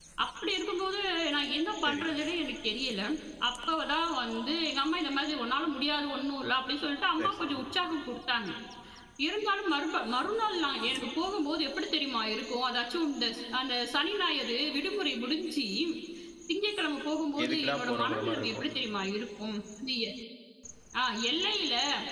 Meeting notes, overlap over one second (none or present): present